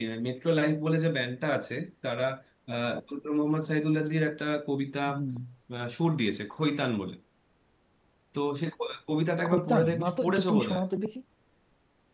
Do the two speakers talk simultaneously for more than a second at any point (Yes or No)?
Yes